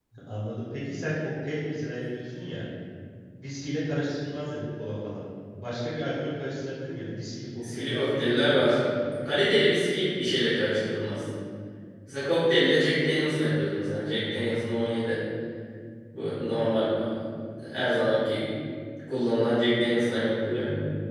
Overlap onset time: 7.6 s

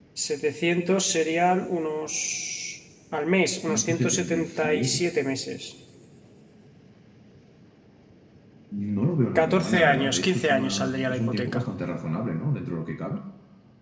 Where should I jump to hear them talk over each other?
3.7 s

